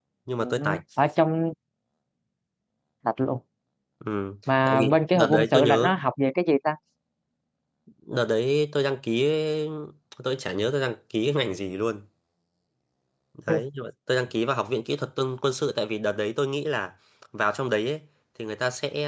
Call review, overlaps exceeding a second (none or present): present